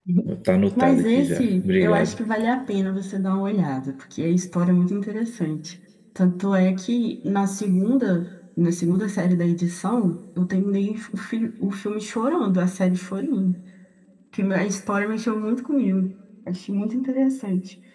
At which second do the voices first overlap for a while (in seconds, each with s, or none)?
0.8 s